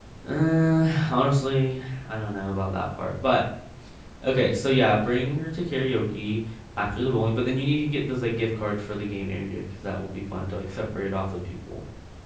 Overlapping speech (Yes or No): No